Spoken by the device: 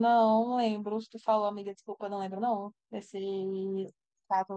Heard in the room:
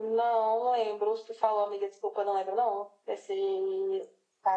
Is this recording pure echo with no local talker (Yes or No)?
Yes